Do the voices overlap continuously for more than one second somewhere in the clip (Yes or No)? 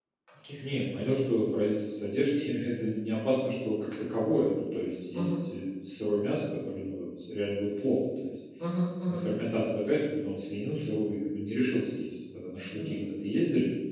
No